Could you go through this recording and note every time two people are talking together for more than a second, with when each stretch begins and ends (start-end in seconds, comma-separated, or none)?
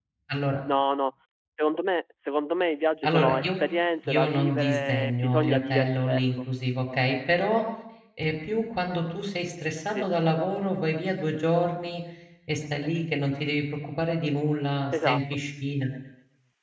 4.1-6.2